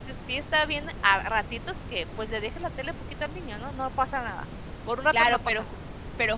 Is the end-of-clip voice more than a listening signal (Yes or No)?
Yes